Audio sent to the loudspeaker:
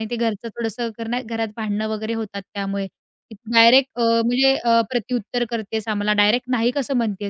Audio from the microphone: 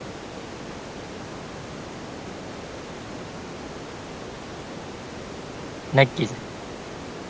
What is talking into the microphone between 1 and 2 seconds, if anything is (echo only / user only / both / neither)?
neither